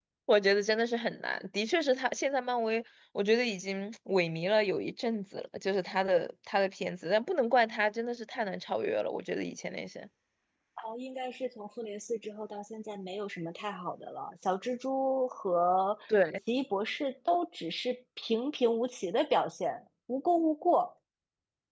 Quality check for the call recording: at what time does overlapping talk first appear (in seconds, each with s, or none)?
none